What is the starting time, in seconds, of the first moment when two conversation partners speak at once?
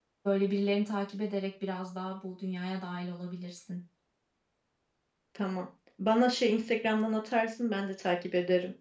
none

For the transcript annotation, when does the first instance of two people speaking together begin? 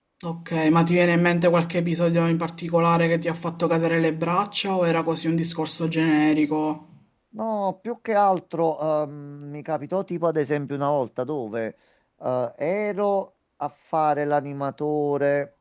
none

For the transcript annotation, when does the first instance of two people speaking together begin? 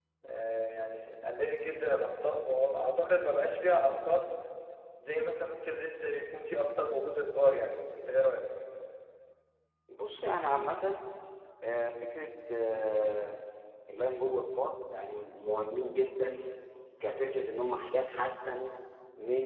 none

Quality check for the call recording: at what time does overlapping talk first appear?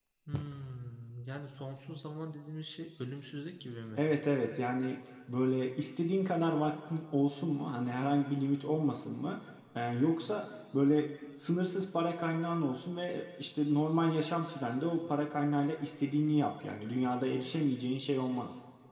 none

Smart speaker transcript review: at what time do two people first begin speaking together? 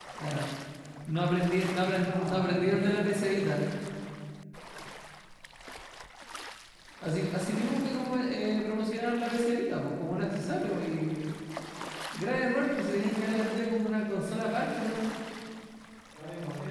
2.0 s

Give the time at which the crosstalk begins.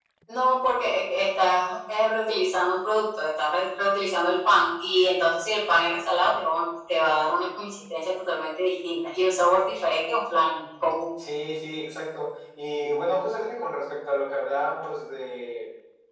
none

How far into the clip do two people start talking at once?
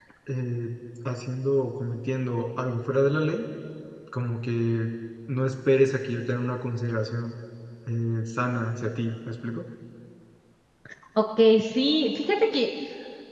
none

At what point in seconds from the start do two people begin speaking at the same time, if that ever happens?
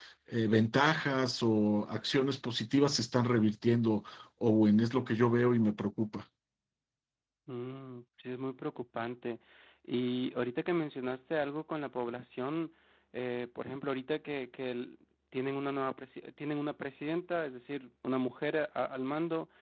none

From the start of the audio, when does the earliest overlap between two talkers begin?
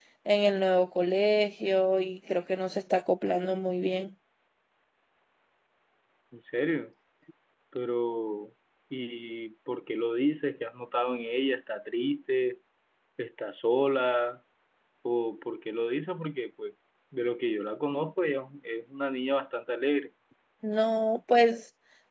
none

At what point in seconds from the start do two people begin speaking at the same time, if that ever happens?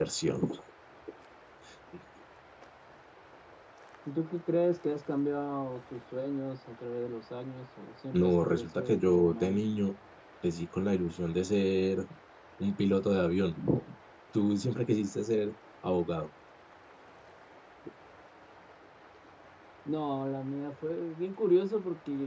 8.1 s

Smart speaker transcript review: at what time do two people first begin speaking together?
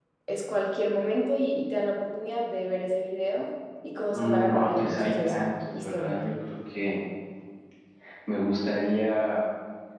4.1 s

